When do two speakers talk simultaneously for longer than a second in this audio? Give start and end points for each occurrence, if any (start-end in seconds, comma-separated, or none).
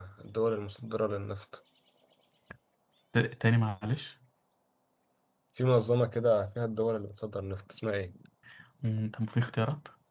none